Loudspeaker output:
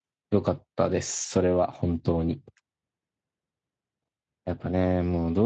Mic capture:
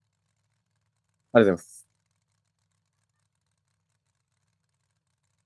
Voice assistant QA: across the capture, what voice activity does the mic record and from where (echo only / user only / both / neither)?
user only